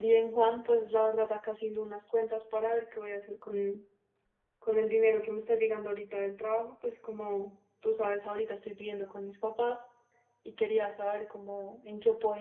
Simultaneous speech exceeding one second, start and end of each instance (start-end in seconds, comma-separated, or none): none